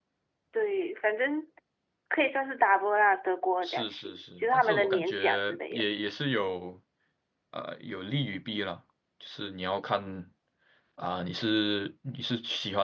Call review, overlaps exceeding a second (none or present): present